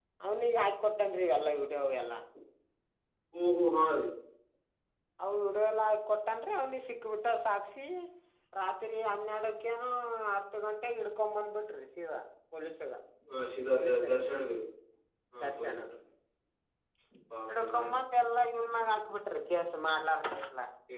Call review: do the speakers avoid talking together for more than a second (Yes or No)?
Yes